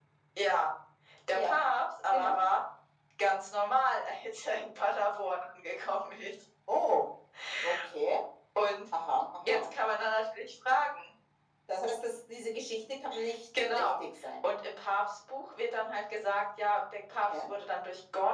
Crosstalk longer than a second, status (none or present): none